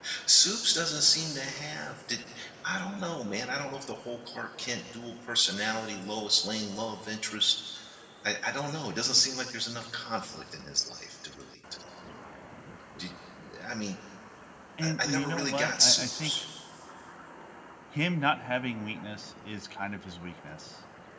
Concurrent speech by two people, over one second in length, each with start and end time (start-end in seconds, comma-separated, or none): 14.8-16.4